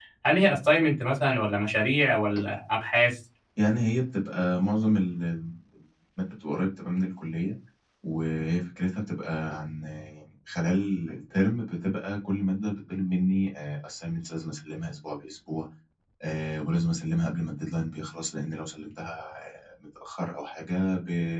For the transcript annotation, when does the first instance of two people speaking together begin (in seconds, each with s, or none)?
none